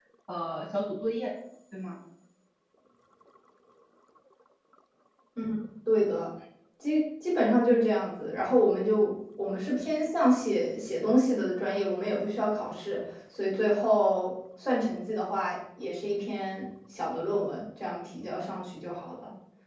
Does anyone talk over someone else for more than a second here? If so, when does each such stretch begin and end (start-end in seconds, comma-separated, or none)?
none